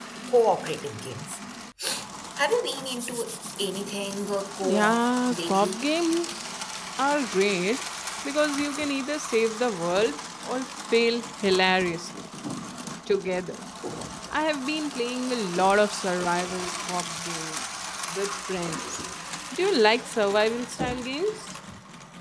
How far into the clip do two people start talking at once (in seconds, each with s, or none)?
4.6 s